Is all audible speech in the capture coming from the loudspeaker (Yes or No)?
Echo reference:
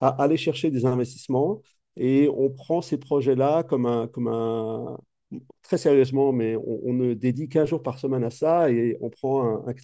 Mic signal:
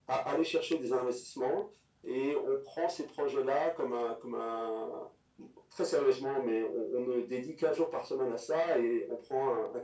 Yes